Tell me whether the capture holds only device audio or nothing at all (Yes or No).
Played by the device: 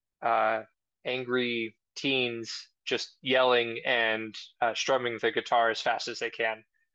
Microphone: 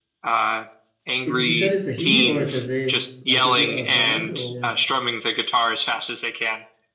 No